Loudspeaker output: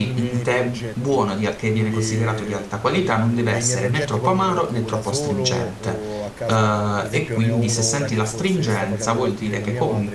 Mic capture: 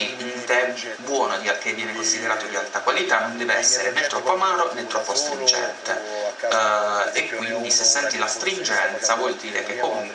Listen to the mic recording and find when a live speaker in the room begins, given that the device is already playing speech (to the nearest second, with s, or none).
none